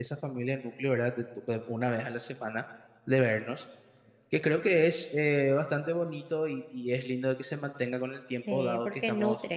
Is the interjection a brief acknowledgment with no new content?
No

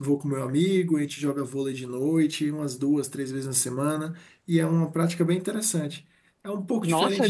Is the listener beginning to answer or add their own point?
Yes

